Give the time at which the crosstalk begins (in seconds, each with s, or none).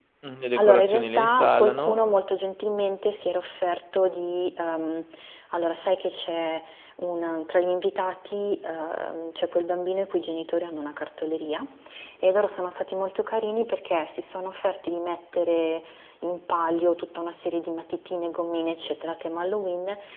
0.6 s